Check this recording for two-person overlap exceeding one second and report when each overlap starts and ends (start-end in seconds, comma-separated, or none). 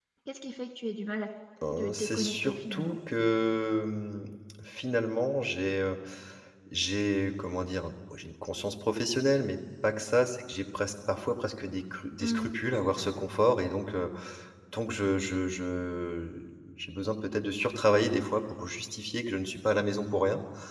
1.8-3.0